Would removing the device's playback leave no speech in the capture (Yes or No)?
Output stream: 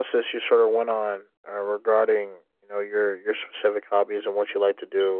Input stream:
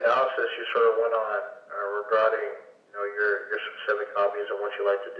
Yes